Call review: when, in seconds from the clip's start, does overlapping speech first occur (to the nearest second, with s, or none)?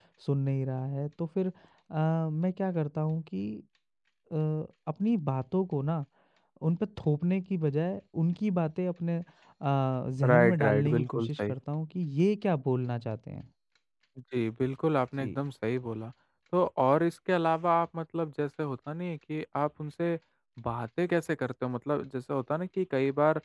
10 s